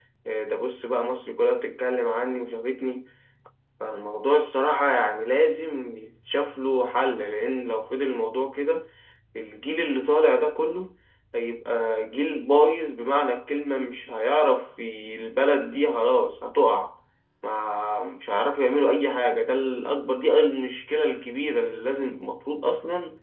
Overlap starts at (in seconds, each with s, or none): none